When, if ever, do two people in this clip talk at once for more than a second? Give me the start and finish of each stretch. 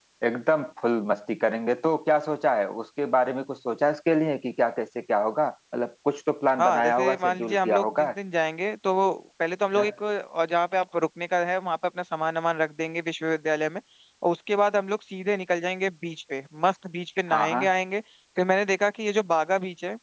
6.6-8.1

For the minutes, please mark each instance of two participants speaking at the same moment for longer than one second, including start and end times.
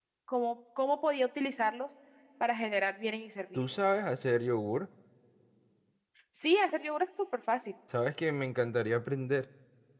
none

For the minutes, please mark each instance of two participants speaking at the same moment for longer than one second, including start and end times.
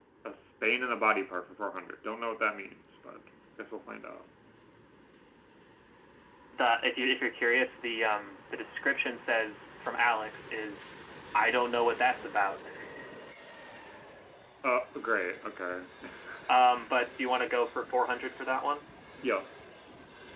none

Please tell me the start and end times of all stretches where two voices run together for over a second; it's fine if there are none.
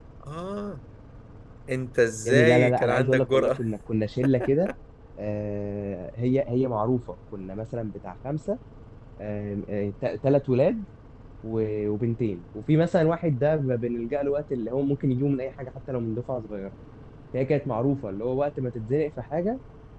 2.2-3.6

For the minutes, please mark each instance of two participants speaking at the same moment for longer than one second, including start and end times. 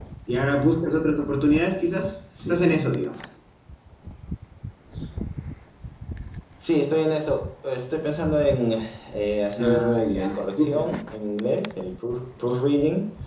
9.6-10.9

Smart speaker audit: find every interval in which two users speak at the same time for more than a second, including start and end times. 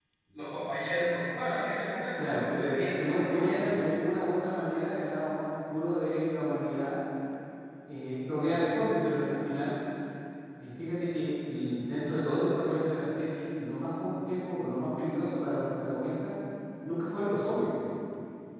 2.2-3.7

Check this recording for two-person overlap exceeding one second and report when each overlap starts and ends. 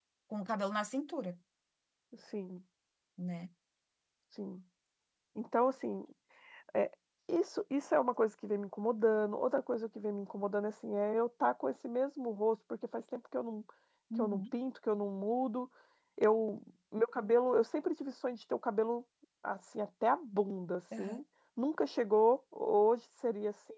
none

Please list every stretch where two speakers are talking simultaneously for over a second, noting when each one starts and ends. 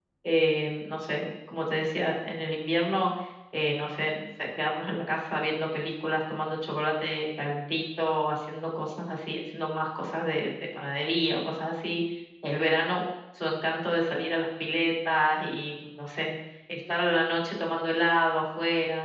none

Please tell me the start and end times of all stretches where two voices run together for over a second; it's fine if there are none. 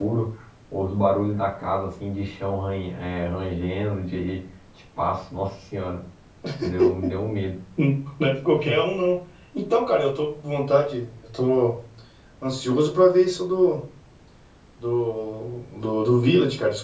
none

